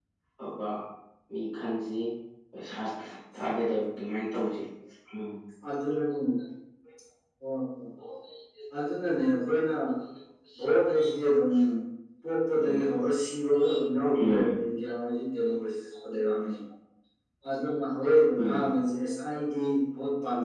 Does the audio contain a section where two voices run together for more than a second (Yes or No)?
No